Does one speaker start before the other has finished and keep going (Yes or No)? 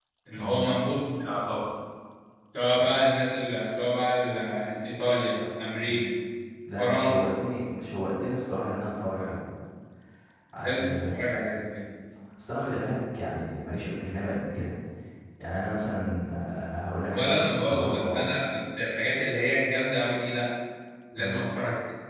Yes